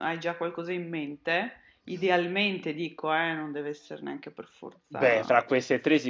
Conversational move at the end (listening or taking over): taking over